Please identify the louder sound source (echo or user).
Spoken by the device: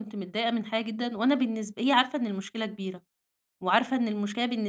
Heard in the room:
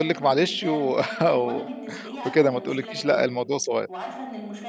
user